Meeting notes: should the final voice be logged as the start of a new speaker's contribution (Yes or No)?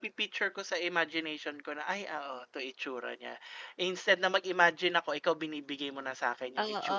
Yes